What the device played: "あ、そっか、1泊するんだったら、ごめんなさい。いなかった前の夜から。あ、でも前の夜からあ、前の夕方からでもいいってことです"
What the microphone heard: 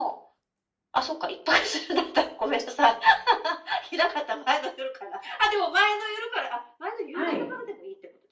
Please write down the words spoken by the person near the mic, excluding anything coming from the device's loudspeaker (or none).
はい。